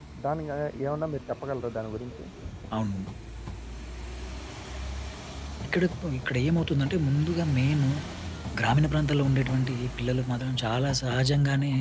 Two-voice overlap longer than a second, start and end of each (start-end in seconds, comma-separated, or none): none